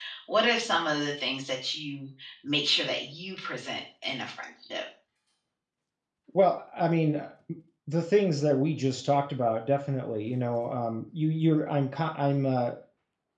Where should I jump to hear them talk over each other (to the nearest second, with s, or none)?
none